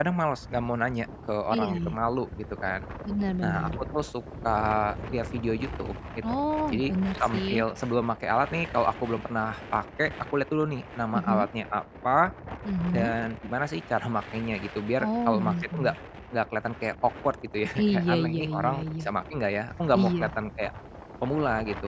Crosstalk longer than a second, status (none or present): present